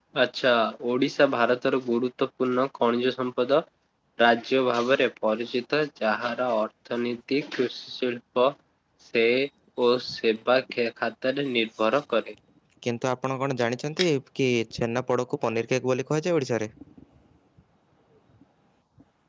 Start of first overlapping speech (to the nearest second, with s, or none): none